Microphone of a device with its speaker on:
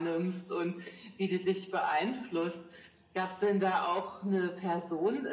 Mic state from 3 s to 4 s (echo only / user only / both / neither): echo only